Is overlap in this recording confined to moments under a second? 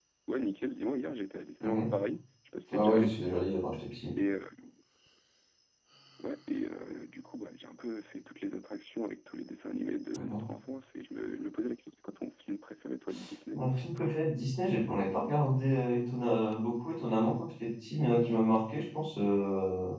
Yes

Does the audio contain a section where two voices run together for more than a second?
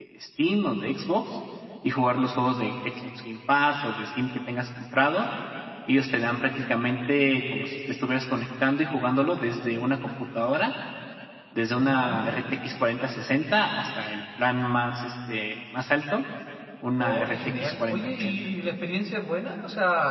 Yes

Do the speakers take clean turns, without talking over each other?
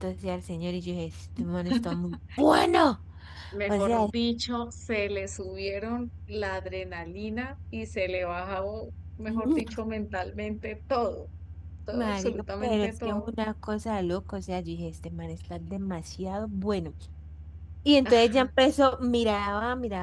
No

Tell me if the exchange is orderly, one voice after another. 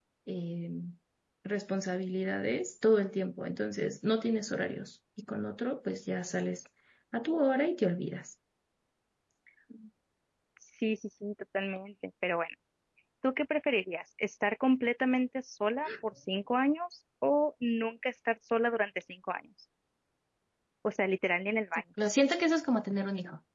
Yes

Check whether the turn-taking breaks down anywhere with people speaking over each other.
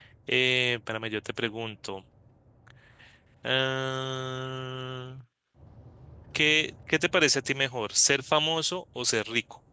No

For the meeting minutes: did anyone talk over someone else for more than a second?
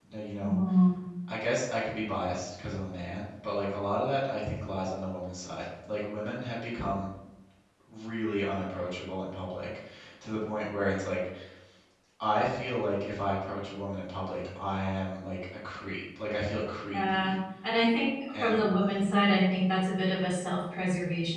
No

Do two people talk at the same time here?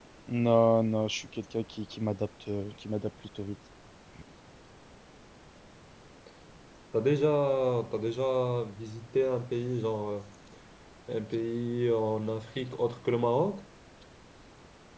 No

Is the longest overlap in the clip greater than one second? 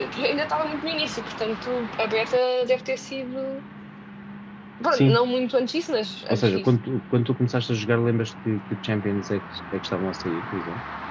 No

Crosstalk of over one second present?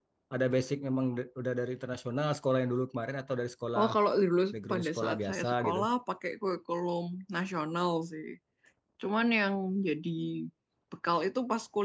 Yes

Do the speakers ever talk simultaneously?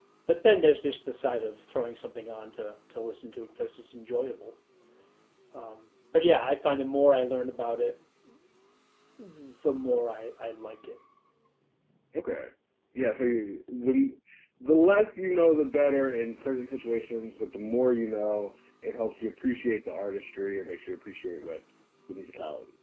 No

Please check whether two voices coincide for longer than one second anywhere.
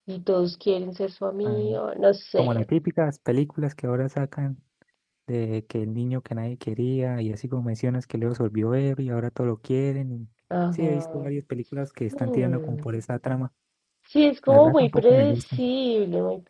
Yes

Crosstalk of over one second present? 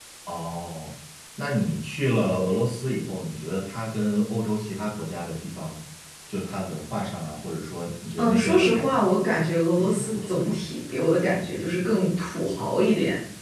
Yes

